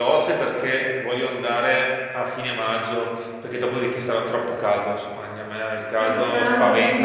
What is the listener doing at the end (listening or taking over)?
taking over